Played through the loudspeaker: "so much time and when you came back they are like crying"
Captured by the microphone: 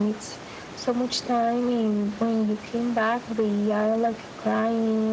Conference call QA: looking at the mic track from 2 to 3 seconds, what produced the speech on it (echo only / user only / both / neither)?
echo only